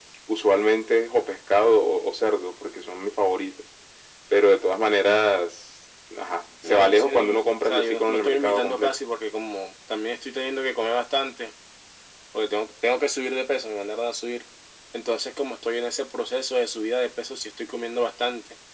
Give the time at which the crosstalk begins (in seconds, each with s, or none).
6.6 s